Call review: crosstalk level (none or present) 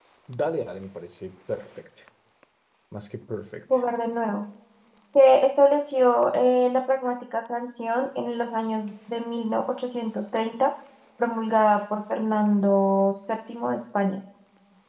none